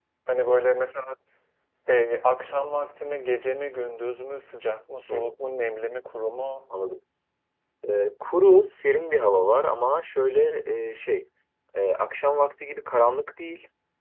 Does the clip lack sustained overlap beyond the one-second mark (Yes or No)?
Yes